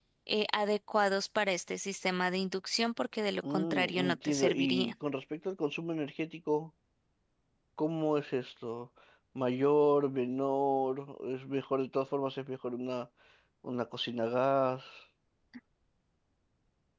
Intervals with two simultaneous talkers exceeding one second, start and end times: 3.5-4.9

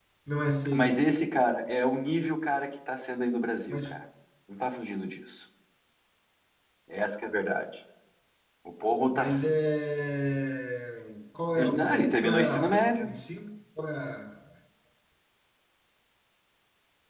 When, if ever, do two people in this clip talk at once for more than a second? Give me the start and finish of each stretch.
11.7-13.1

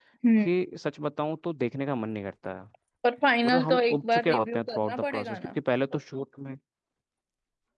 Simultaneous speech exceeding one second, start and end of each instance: 3.4-5.6

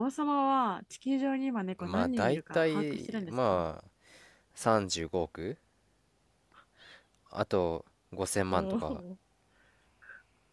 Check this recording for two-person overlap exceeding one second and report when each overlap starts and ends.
1.8-3.6

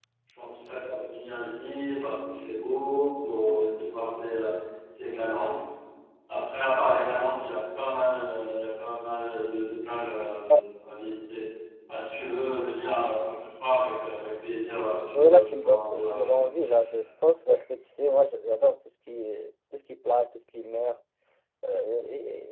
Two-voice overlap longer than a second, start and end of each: 15.1-16.5

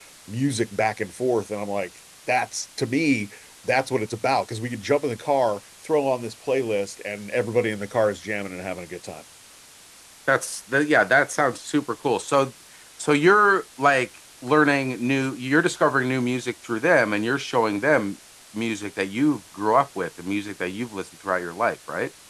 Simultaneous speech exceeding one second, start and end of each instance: none

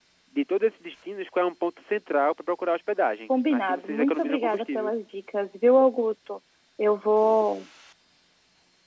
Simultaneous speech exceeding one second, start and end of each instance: 3.5-4.9

